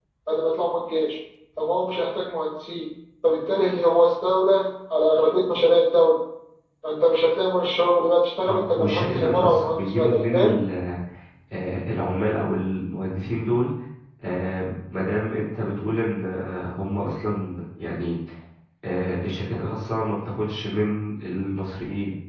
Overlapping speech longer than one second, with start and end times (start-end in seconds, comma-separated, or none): 8.5-10.6